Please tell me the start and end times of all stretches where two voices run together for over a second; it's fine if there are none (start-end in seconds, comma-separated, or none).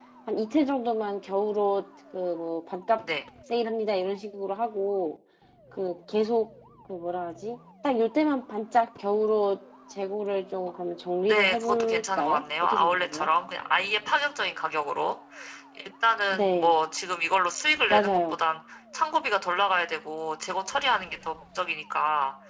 11.3-13.3